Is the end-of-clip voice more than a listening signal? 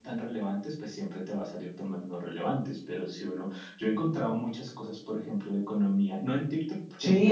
Yes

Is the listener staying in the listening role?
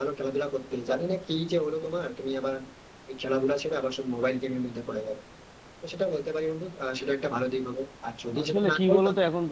No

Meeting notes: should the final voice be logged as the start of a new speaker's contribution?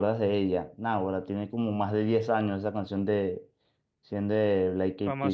Yes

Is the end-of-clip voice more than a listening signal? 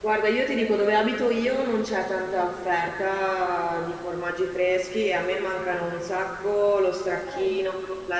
No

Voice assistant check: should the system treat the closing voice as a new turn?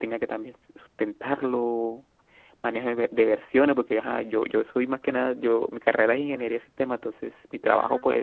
No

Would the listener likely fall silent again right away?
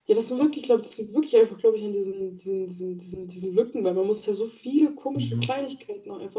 Yes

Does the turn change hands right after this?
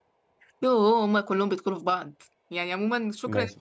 No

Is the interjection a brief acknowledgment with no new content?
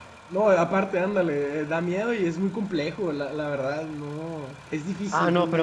No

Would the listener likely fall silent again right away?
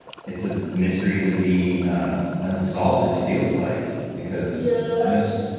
No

